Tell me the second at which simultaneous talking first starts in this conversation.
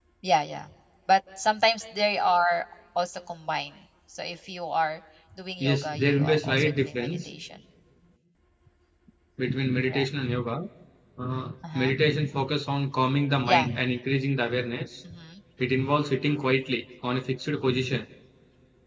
5.6 s

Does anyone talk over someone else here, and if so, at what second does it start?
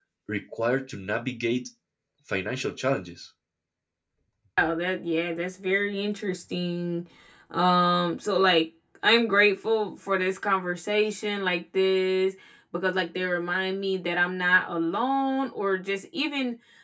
none

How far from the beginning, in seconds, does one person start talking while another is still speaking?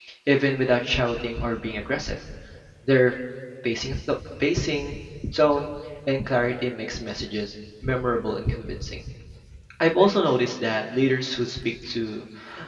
none

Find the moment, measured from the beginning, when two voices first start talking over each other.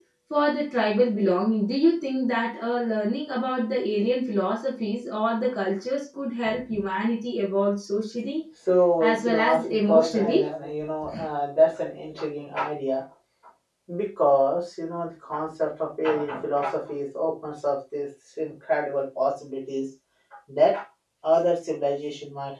9.0 s

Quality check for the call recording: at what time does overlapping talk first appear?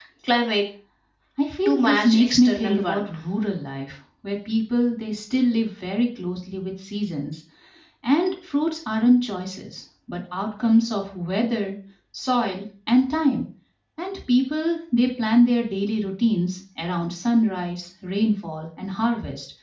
1.6 s

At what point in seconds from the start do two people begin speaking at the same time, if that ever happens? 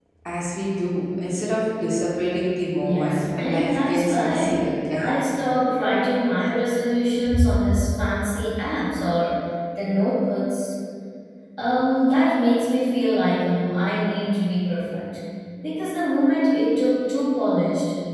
2.8 s

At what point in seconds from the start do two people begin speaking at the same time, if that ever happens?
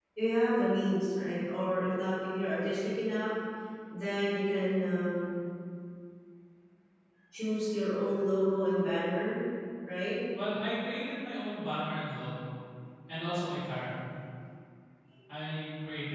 none

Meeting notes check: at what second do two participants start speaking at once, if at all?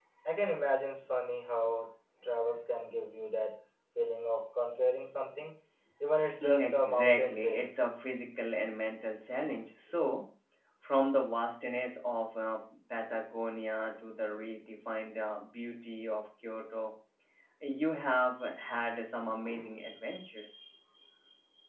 6.4 s

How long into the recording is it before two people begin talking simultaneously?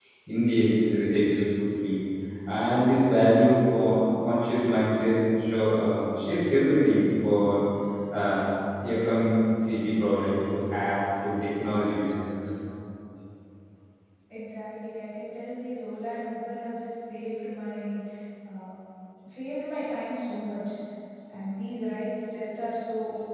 none

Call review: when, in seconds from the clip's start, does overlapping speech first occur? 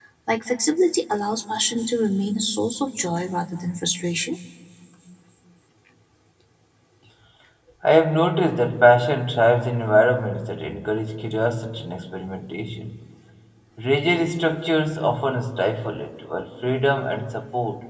none

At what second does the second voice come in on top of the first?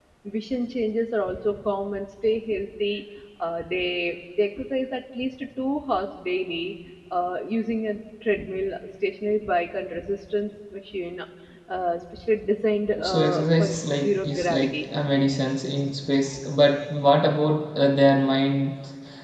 13.0 s

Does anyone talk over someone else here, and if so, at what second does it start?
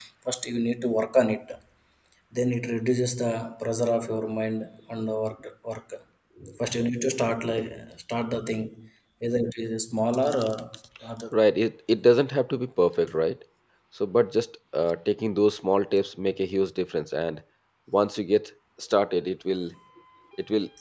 none

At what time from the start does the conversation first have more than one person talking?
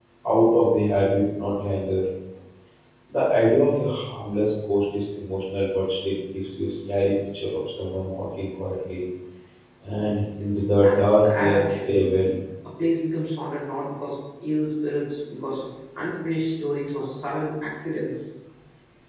10.7 s

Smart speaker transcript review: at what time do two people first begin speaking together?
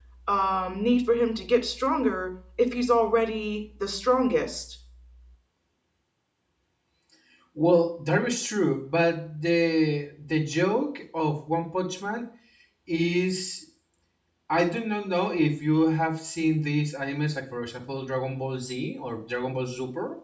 none

